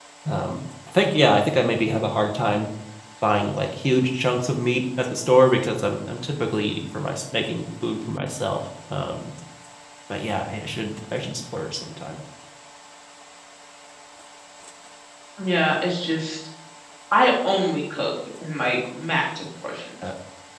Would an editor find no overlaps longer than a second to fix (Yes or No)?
Yes